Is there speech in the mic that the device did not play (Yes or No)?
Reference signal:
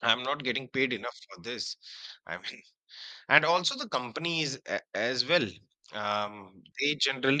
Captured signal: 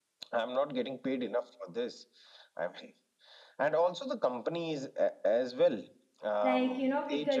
Yes